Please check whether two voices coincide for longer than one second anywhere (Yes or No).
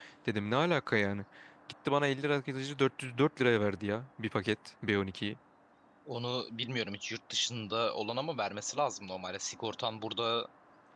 No